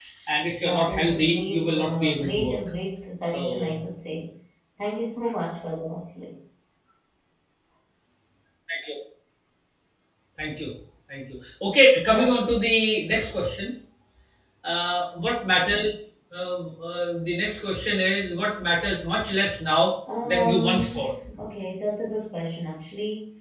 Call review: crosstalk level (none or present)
present